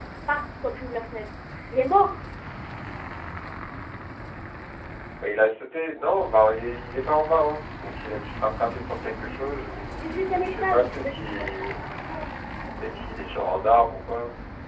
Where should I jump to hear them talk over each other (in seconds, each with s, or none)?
10.4 s